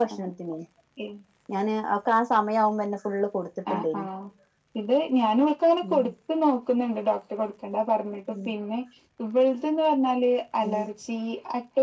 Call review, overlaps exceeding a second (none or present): none